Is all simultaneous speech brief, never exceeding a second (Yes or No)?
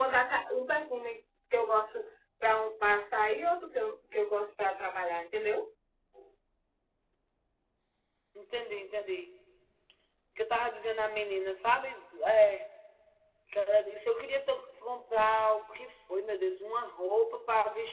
Yes